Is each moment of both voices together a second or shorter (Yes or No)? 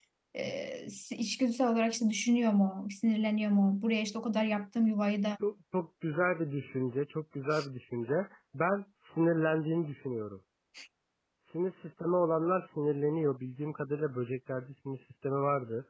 Yes